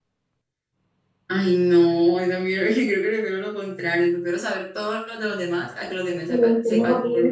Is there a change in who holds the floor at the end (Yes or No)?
Yes